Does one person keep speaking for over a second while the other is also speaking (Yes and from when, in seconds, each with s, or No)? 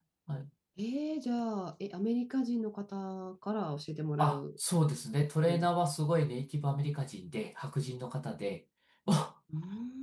No